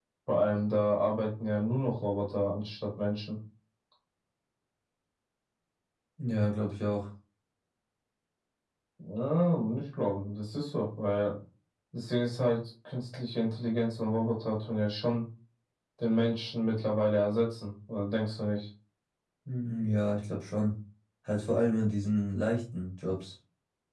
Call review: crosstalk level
none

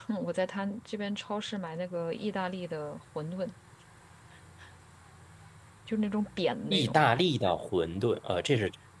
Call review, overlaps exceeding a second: none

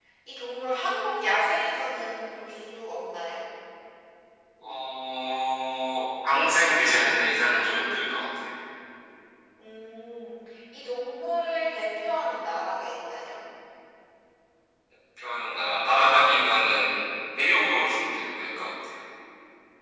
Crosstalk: none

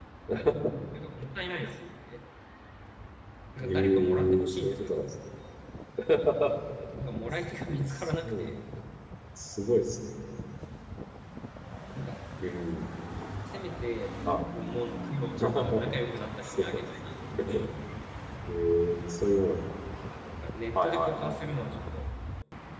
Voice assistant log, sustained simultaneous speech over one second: present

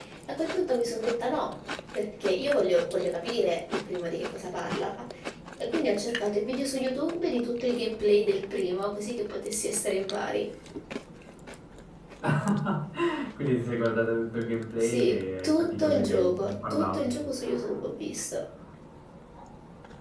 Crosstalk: present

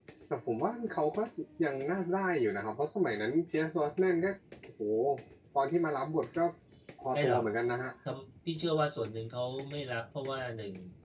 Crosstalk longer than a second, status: none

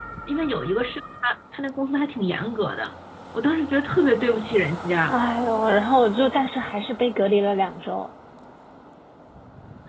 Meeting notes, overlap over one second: none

